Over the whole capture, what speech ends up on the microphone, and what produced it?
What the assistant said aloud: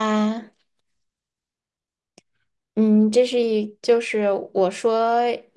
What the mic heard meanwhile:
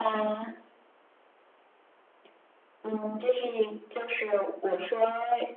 echo only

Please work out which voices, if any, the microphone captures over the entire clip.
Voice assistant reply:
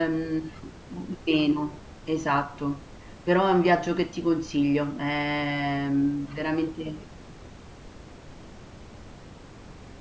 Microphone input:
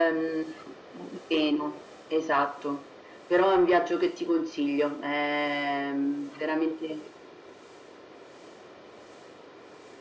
echo only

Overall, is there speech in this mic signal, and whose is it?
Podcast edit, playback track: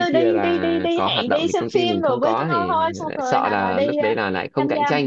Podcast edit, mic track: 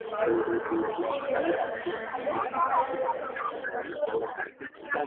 both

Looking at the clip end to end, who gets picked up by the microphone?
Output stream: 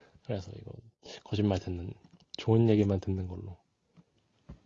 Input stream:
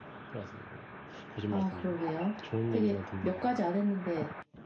both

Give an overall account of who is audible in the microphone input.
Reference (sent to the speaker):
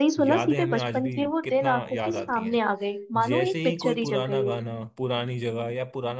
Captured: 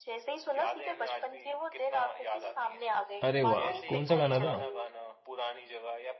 both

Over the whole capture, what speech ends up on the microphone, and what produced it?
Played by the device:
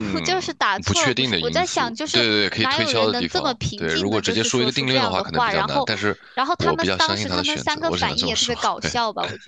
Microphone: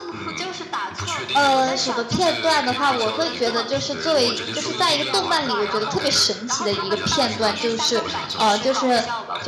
both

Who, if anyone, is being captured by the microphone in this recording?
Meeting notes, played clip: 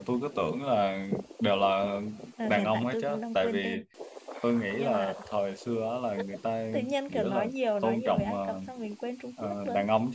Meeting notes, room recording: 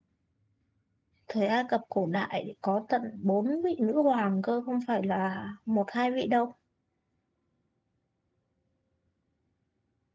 user only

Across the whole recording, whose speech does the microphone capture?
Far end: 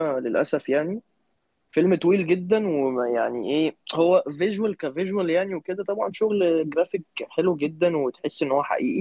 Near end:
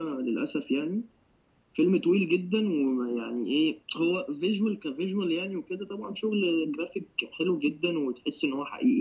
echo only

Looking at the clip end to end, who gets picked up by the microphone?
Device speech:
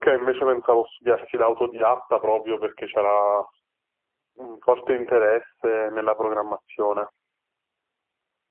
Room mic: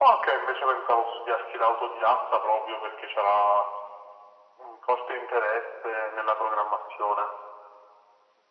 echo only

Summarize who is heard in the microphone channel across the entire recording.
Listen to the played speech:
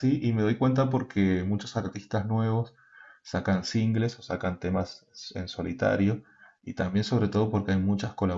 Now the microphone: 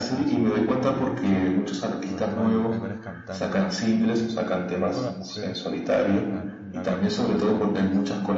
both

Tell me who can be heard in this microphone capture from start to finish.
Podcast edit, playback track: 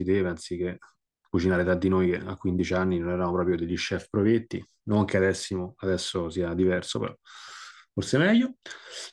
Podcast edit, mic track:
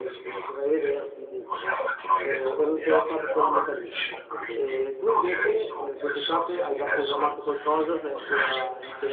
both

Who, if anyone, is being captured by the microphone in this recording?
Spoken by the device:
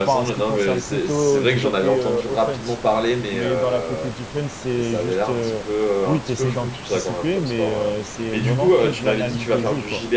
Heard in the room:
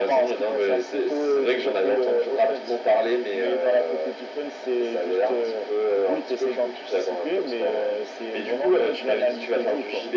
echo only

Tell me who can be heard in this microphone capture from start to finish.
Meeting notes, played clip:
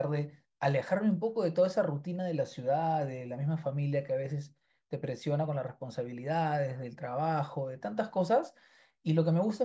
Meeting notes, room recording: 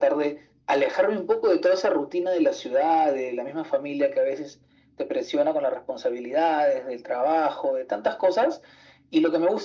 echo only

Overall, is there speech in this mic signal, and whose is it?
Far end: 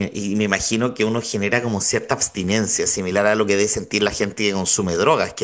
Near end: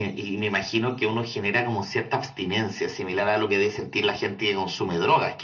echo only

